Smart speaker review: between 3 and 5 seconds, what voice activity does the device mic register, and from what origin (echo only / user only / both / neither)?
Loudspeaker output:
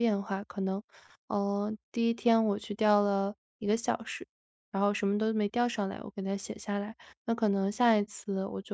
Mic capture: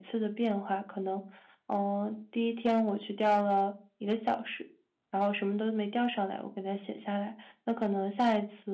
echo only